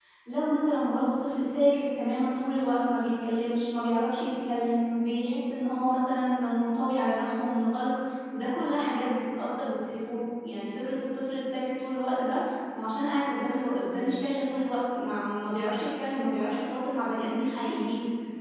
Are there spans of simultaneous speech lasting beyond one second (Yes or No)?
No